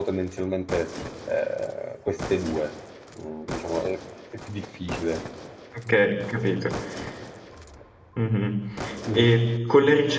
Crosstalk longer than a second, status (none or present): none